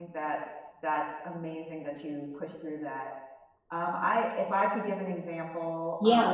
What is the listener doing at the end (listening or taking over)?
taking over